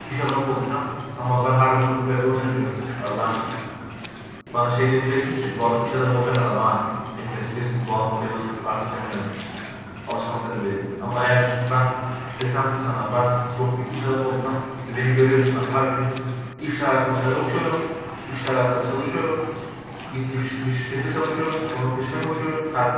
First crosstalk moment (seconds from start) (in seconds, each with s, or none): none